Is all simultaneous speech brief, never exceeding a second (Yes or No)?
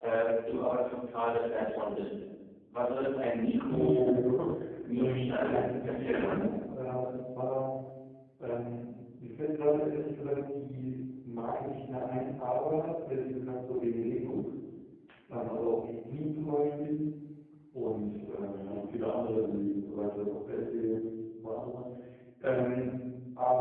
No